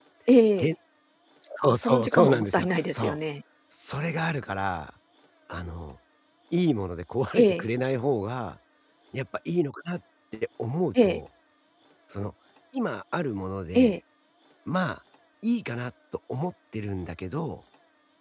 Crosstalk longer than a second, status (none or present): present